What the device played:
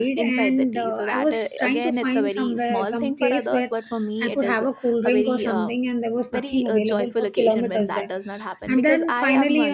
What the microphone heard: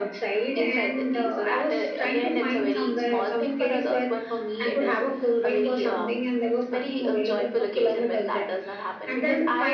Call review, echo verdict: present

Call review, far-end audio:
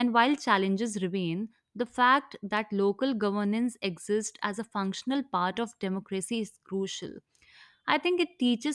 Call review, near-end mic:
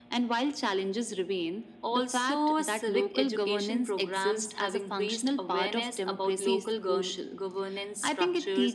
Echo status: present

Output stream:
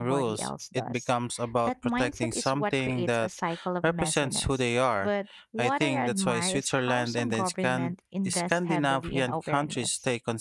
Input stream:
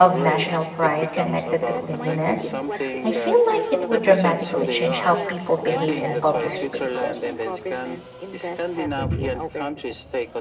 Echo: present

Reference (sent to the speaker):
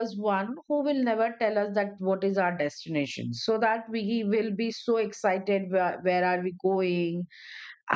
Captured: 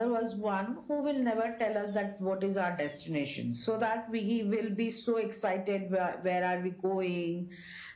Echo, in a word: present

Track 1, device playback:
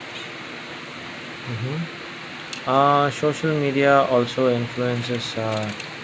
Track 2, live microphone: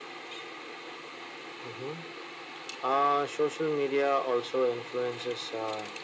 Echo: present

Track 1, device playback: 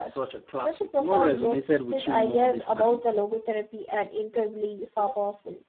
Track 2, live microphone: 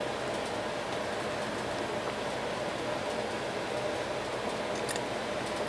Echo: none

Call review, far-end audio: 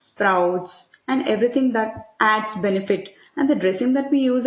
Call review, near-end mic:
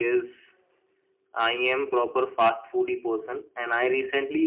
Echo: none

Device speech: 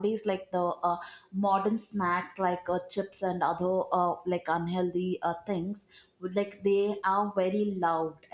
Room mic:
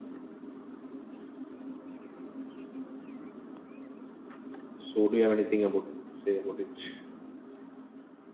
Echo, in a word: none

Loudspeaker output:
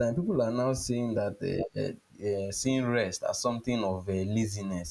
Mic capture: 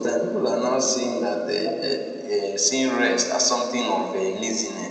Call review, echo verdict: present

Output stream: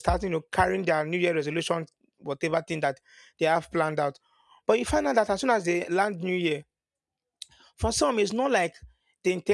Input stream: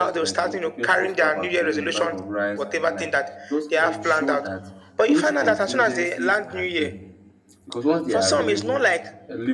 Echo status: present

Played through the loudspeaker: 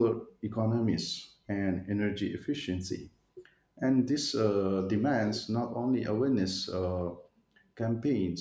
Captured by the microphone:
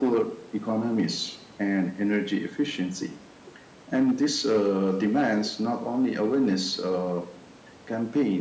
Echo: present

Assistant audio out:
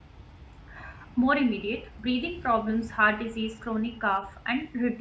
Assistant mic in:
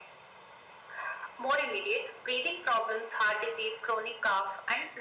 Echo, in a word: present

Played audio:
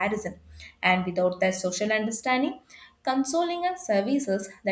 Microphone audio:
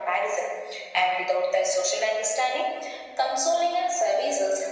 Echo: present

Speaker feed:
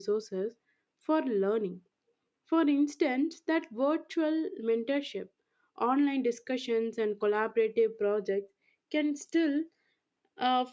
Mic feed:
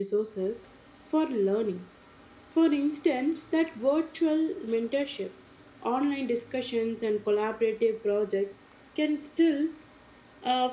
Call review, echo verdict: present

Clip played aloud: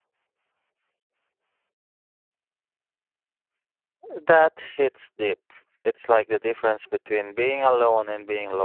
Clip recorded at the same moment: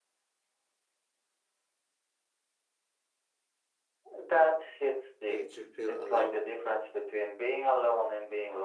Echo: present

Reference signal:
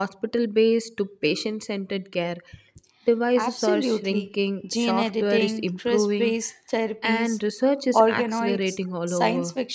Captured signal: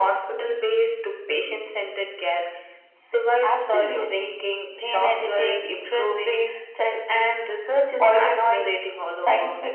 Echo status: present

